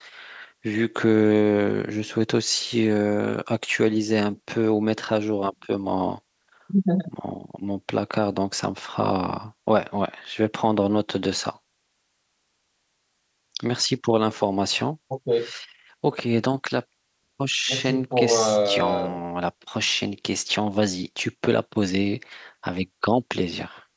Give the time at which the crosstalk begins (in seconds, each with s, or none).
17.7 s